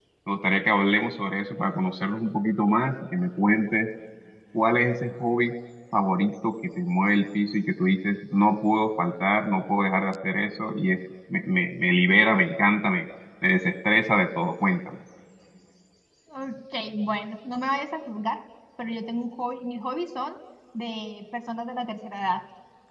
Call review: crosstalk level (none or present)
none